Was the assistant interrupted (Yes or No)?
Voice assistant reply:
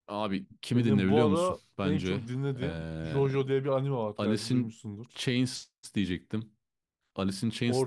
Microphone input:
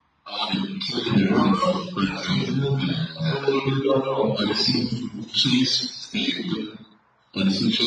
No